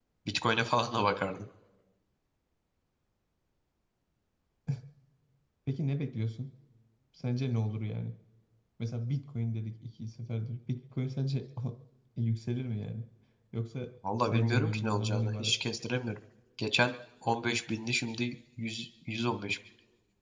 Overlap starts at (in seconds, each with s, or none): 14.2 s